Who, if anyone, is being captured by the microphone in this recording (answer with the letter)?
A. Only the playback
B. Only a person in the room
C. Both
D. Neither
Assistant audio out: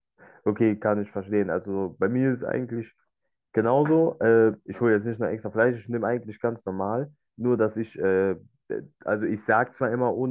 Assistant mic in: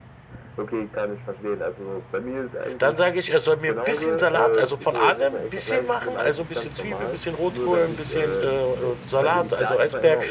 C